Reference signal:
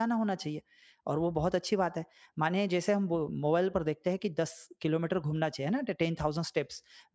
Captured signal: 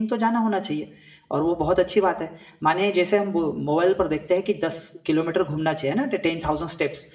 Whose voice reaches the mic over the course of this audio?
echo only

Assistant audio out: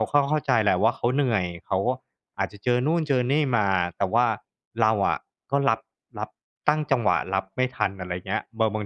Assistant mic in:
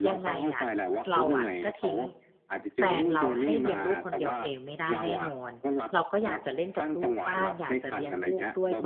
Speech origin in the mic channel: both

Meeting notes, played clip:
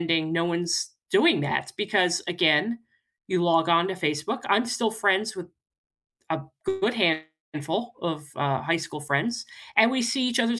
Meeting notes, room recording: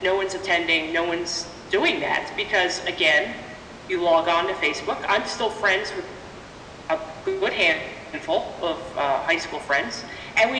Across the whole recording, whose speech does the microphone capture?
echo only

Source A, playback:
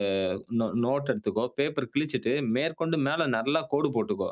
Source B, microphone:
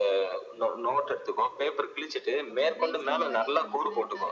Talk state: both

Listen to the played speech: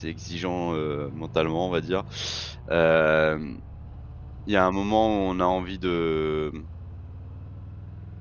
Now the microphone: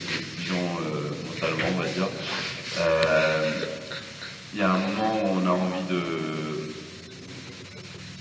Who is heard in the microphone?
echo only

